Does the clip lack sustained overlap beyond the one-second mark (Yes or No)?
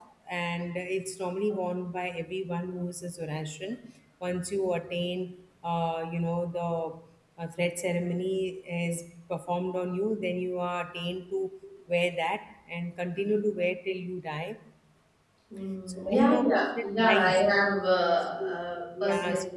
No